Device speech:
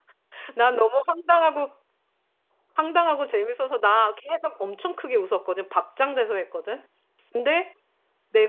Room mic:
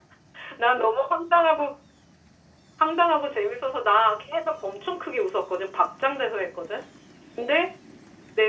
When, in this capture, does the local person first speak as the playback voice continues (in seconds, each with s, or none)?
none